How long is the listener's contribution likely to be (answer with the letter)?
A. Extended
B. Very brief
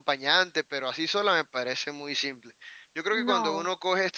B